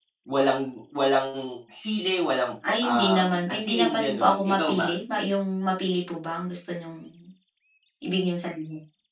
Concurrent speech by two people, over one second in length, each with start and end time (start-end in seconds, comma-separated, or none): 2.8-4.9